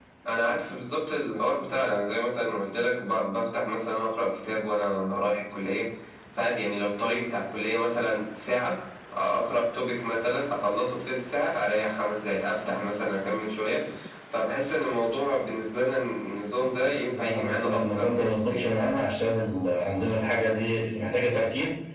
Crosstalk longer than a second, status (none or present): present